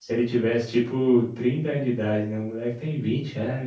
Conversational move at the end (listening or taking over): taking over